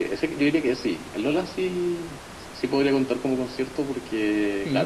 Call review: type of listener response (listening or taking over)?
taking over